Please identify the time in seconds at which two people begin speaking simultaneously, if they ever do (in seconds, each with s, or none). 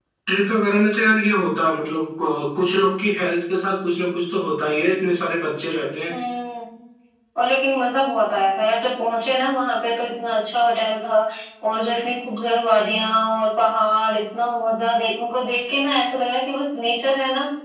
none